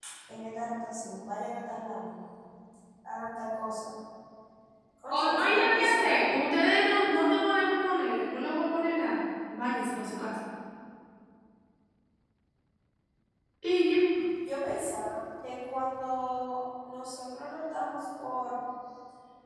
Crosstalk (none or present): present